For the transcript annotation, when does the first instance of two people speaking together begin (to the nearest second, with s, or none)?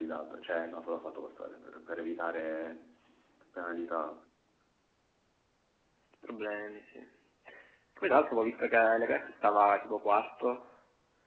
none